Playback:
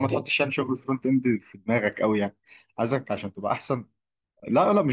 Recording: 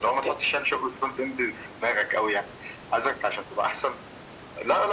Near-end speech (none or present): none